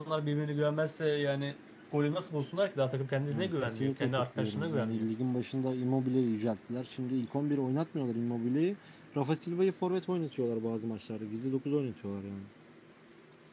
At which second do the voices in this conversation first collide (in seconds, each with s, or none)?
3.3 s